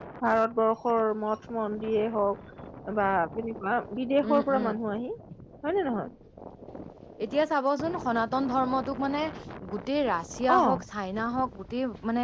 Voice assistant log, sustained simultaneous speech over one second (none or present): none